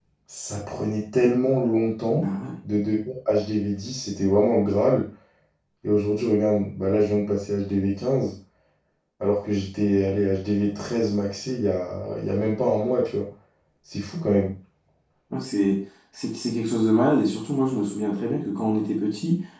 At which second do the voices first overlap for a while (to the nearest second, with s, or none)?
none